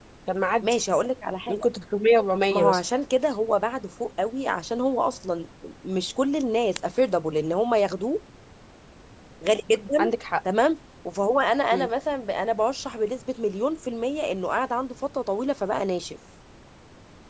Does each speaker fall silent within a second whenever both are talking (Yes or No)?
Yes